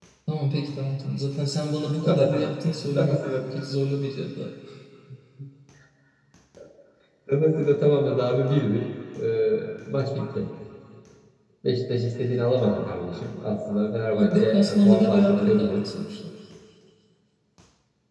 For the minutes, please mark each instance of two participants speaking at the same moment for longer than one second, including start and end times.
14.1-15.8

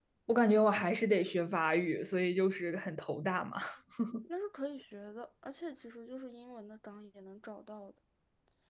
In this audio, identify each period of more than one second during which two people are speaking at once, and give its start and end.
none

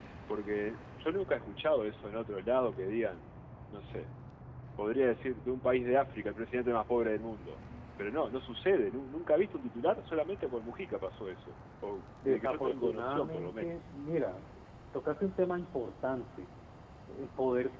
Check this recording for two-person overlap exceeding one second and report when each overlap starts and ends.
12.3-13.7

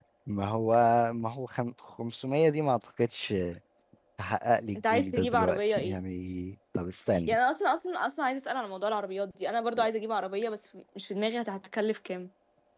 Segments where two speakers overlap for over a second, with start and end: 4.8-6.0

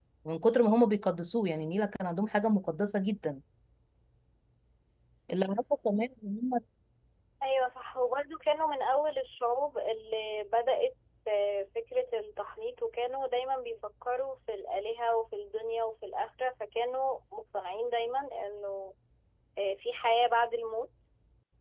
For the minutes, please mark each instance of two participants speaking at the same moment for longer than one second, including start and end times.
none

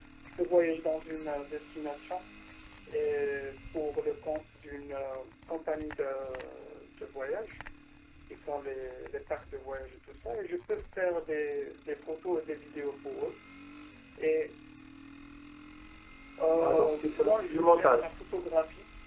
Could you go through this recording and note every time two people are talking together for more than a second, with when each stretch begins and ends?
16.6-18.1

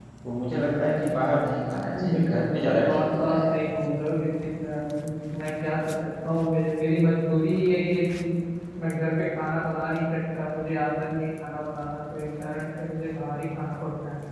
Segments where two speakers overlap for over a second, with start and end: 2.0-3.4

